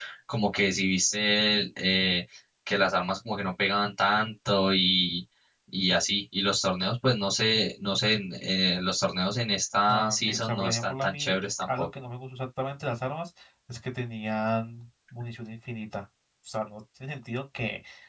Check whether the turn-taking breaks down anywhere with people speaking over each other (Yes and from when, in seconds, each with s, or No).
Yes, from 9.9 s